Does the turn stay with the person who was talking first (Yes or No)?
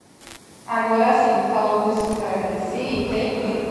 Yes